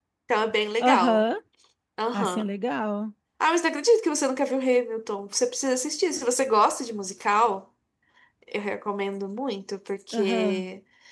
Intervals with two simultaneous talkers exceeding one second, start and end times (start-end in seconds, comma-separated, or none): none